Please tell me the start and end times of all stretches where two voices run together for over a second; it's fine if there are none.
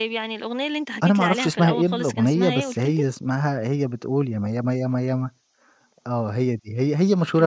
1.0-3.0

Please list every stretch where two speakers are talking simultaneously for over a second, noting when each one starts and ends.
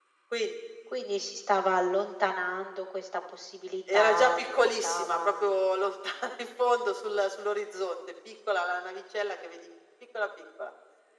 3.9-5.5

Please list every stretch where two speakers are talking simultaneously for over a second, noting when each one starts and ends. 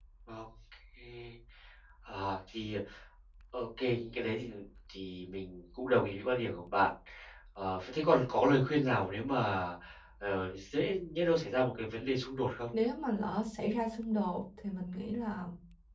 none

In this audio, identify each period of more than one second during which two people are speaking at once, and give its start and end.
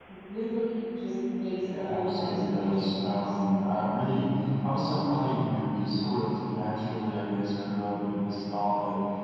1.6-3.4

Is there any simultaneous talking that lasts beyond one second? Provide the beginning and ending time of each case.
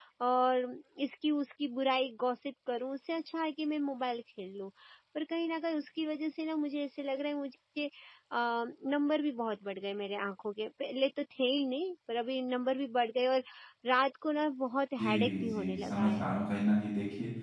15.0-16.2

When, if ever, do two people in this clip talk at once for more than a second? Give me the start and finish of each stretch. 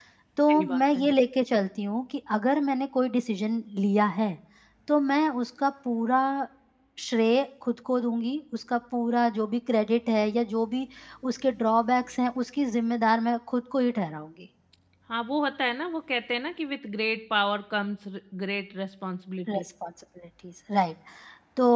none

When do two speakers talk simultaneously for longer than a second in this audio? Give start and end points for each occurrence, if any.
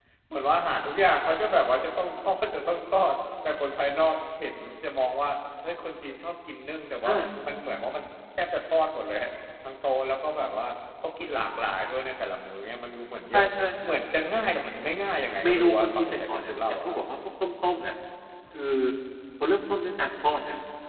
15.4-17.0

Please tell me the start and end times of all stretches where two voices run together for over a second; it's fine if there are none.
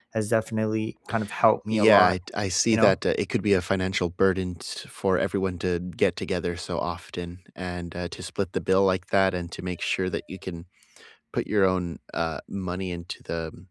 none

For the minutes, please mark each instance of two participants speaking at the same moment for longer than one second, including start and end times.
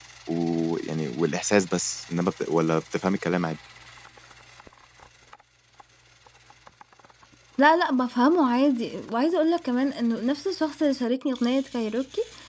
none

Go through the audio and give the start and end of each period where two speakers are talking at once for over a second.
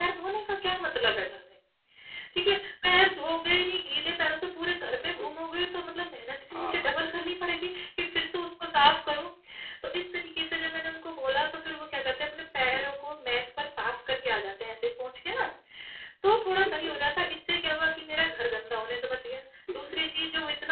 none

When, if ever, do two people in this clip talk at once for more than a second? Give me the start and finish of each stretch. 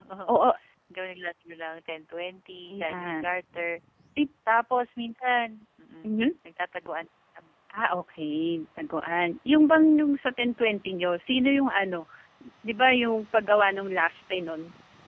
none

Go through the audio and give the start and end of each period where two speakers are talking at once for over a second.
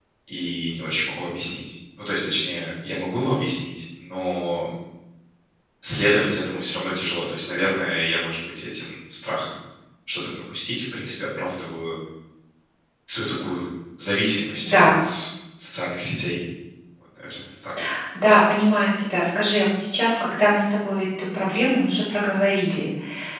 none

